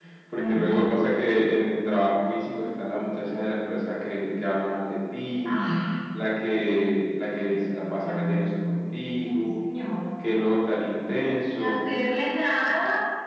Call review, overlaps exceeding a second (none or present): present